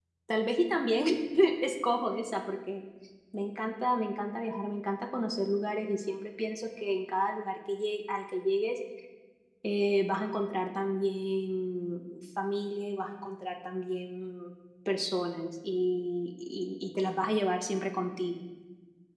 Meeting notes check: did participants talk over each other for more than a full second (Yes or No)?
No